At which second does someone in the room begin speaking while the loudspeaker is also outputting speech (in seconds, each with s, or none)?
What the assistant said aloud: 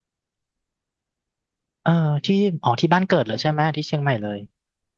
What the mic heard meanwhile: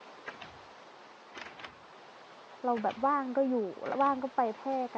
2.6 s